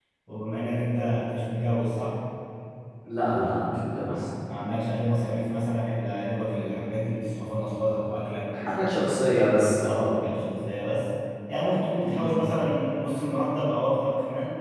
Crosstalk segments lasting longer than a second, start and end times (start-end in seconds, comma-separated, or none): none